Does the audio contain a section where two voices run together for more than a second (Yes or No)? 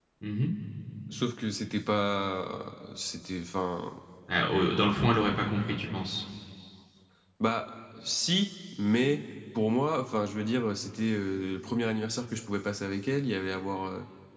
No